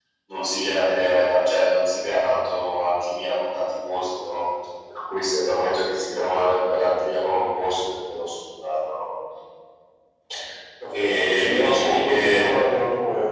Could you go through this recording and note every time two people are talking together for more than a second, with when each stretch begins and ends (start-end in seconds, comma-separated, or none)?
10.9-12.5